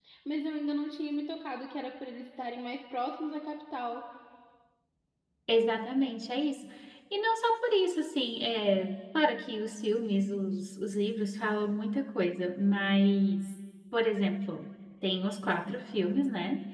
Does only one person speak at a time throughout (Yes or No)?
Yes